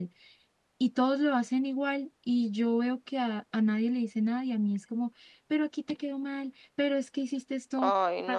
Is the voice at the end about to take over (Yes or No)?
No